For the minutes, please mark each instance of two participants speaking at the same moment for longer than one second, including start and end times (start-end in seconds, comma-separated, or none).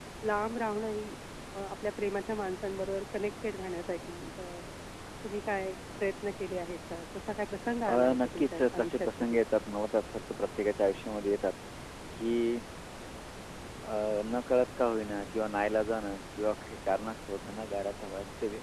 7.9-9.4